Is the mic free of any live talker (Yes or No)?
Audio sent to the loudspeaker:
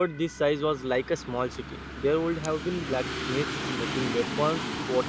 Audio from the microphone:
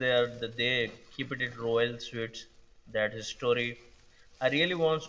No